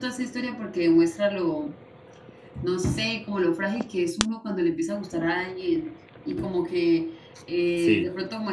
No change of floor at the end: Yes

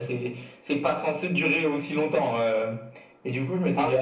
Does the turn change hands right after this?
No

